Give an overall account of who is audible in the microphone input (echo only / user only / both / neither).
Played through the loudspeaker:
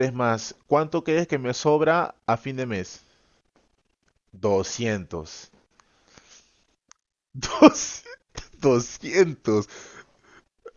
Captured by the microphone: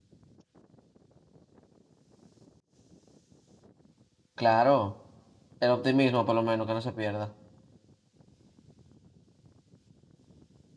user only